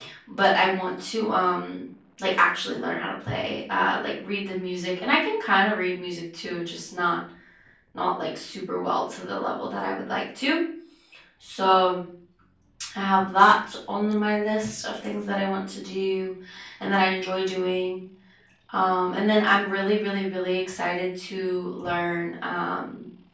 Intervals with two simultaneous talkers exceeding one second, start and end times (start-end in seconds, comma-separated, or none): none